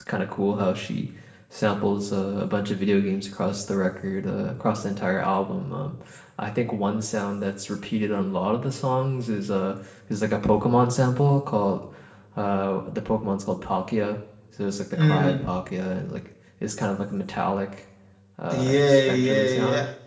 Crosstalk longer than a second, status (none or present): present